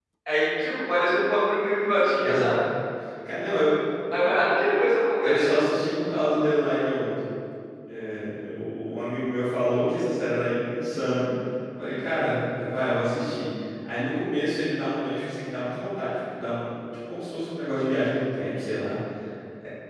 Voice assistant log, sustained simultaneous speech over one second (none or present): none